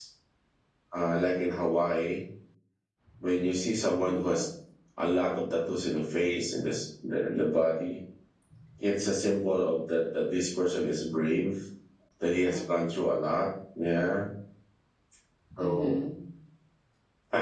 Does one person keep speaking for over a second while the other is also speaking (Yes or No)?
No